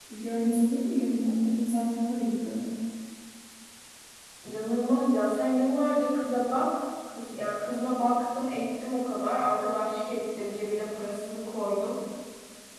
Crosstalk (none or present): none